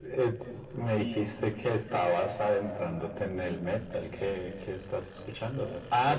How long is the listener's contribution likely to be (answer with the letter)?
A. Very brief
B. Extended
B